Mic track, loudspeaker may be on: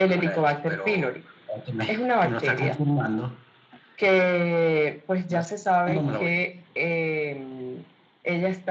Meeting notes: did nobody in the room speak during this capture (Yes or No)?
Yes